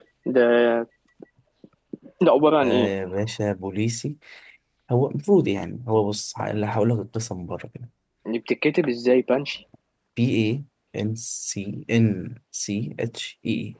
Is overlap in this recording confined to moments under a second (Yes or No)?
Yes